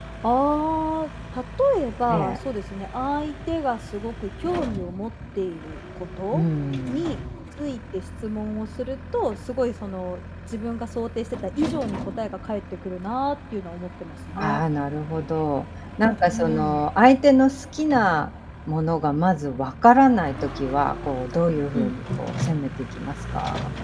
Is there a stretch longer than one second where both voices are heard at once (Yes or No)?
No